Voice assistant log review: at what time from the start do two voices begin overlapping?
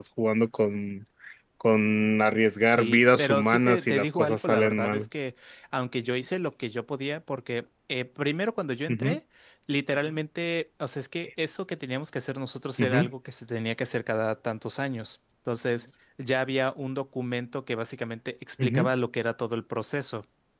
2.6 s

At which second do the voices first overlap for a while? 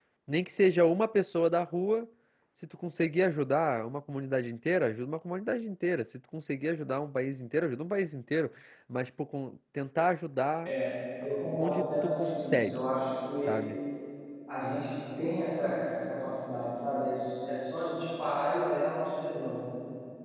11.5 s

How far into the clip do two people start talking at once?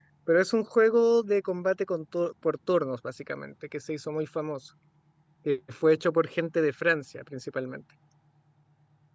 none

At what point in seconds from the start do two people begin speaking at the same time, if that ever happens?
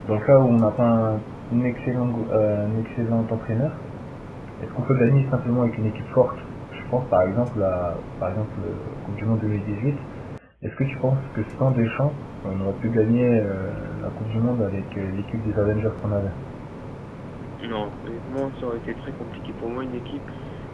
none

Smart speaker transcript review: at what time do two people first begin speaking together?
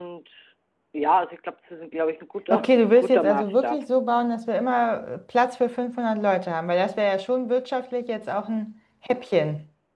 2.5 s

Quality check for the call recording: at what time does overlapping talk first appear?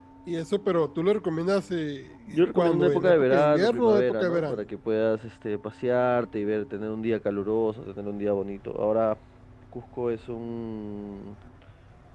2.3 s

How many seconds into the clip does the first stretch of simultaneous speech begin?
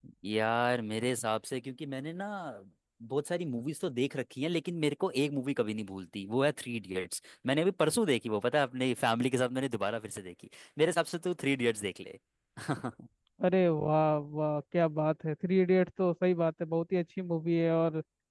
none

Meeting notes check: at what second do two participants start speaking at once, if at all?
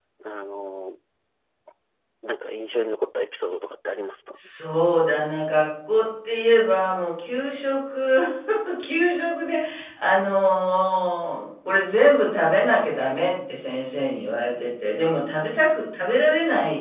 none

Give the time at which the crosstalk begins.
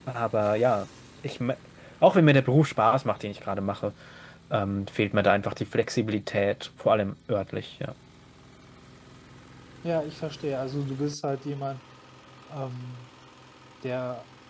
none

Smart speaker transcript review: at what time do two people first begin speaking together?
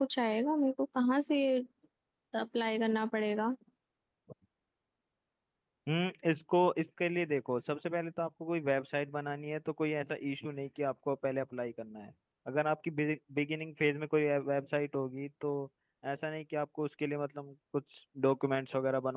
none

